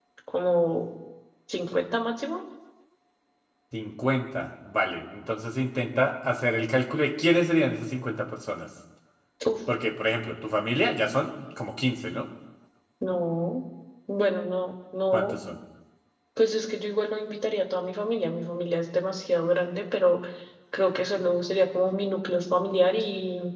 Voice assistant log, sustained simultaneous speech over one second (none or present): none